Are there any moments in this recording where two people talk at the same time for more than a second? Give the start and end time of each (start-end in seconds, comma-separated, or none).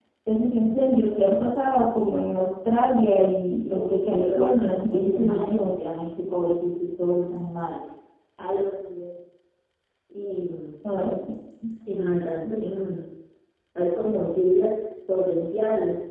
3.7-5.8